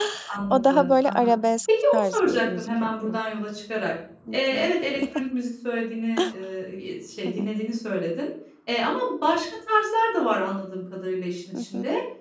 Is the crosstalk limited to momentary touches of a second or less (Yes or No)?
No